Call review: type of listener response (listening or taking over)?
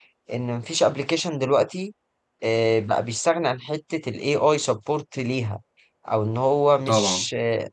listening